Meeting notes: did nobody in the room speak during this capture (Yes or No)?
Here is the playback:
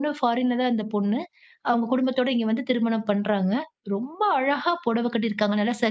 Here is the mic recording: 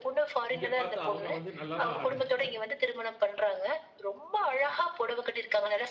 No